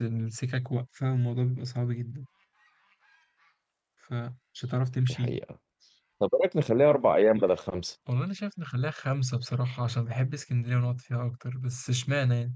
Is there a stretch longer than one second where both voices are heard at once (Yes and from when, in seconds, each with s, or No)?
No